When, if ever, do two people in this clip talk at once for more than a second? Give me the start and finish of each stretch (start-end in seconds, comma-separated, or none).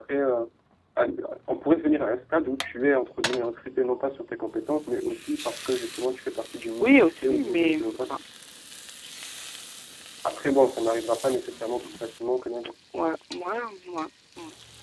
6.8-8.1